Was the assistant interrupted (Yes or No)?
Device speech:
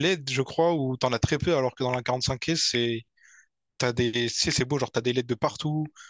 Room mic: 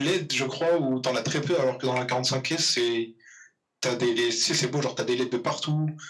No